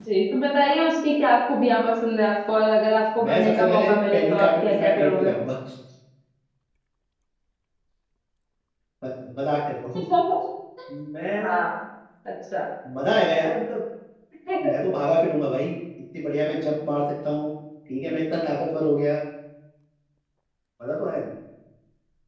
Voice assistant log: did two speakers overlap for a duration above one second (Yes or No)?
Yes